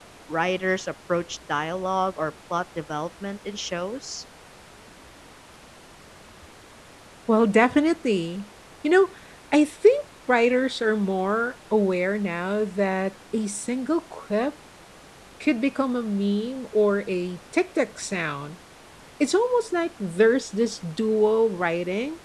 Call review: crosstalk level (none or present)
none